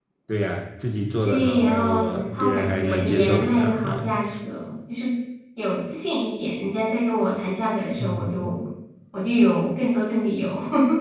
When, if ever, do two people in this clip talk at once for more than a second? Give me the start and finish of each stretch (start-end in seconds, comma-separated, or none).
1.2-4.1